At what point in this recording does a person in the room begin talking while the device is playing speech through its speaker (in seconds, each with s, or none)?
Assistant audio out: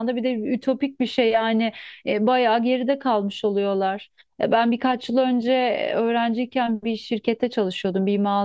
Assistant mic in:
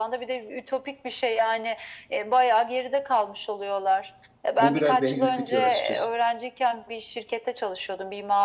4.6 s